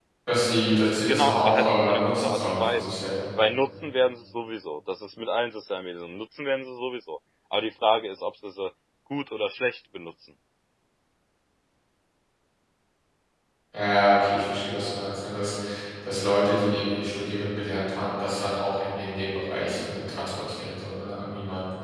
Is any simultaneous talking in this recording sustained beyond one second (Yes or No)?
Yes